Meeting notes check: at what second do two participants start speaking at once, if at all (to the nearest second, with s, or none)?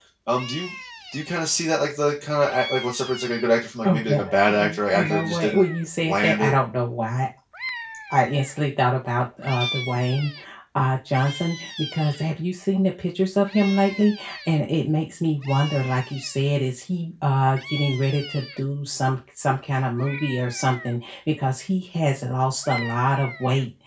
4 s